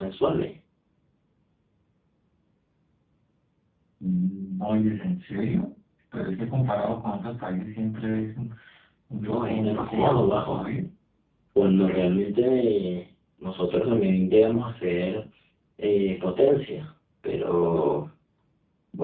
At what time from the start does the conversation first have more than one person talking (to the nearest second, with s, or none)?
9 s